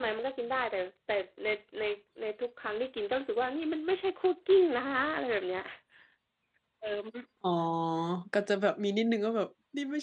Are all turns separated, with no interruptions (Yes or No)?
Yes